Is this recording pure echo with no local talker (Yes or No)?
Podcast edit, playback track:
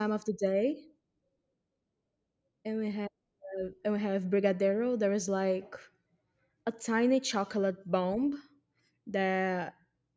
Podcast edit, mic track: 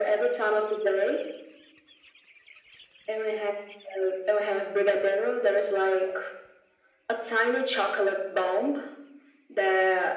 Yes